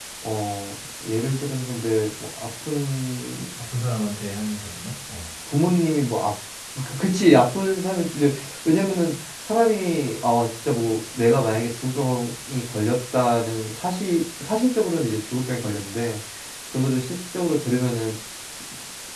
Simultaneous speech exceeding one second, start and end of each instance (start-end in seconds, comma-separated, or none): none